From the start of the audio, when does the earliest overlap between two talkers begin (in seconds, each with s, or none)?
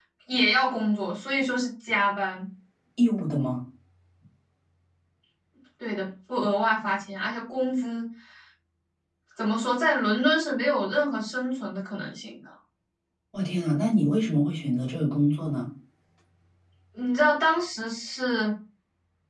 none